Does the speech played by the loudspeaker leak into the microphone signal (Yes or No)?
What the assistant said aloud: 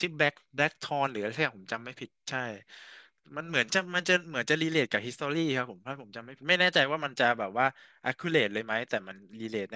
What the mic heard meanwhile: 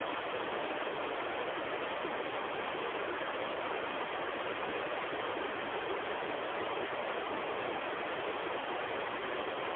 No